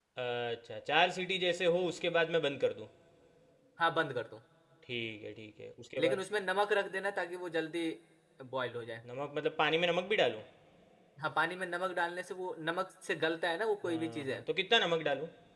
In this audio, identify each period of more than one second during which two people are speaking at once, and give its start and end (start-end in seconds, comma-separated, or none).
none